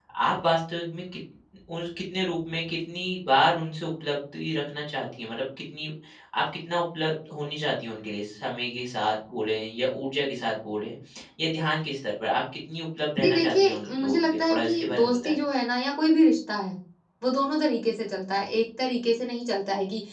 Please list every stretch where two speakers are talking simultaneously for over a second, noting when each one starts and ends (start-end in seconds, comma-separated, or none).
13.2-15.4